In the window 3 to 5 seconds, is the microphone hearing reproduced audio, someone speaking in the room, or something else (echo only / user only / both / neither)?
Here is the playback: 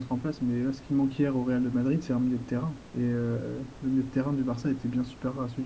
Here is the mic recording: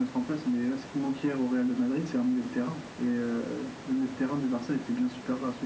echo only